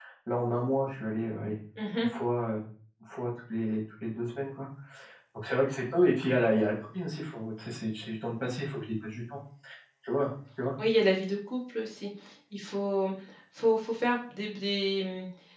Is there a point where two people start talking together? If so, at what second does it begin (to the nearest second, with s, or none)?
none